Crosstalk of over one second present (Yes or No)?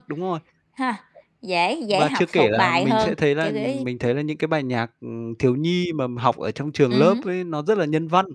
Yes